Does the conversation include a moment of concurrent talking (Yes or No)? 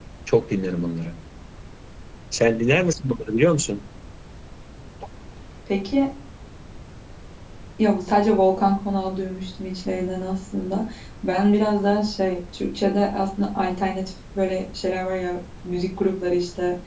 No